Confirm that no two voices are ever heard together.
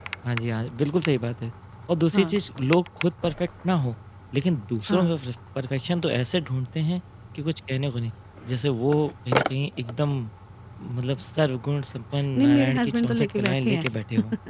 No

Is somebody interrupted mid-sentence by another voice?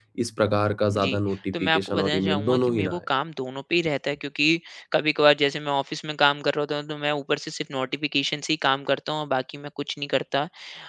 Yes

